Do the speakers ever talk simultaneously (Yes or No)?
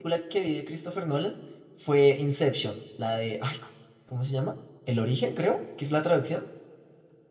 No